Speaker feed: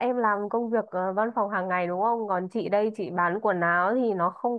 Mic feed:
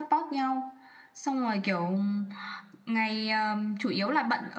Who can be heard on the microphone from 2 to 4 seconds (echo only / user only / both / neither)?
user only